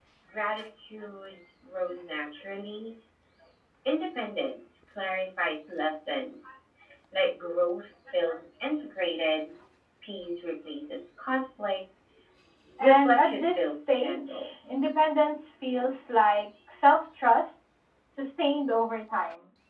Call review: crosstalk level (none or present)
present